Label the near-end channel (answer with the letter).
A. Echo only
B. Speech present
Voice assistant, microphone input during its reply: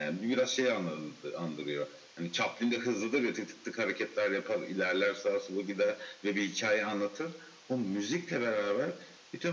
A